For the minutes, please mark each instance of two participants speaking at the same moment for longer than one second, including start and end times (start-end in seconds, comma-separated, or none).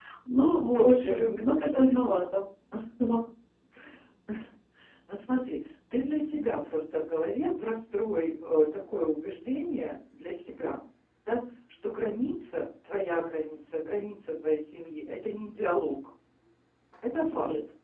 0.8-2.1